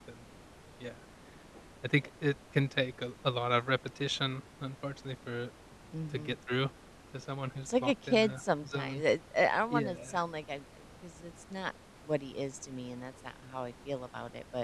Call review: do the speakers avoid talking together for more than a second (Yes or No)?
No